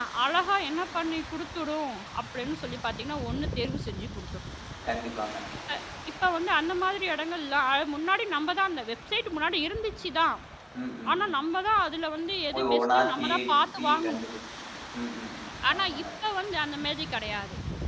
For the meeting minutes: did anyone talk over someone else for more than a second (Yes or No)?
Yes